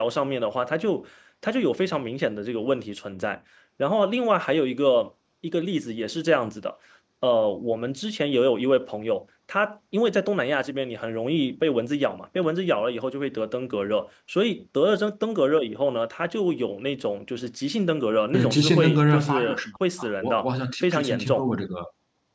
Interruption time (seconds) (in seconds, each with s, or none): 18.3 s